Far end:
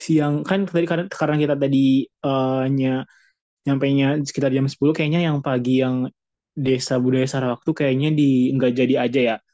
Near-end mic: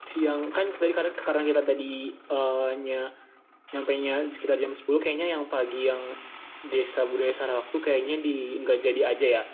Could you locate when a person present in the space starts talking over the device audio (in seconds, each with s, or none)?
none